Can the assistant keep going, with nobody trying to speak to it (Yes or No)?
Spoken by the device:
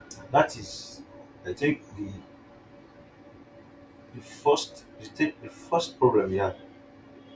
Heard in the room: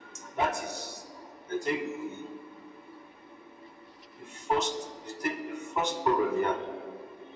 Yes